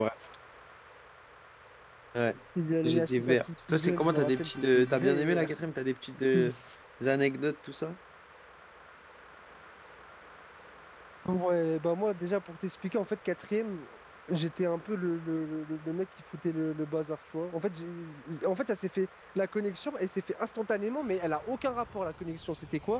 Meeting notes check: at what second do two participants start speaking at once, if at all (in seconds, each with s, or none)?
2.8 s